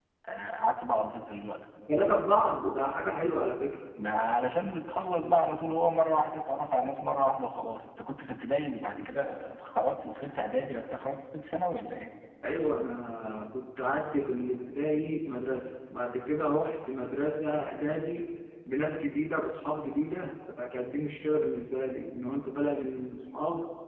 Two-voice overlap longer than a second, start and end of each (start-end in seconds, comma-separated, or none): none